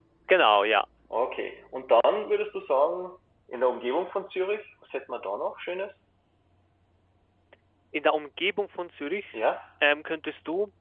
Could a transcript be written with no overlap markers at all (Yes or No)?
Yes